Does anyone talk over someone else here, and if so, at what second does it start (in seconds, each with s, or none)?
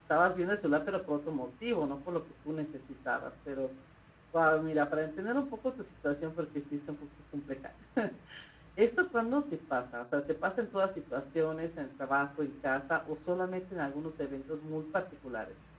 none